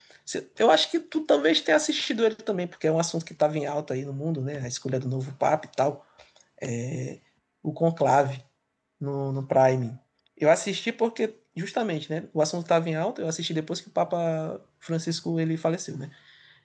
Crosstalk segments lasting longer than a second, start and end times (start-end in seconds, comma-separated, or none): none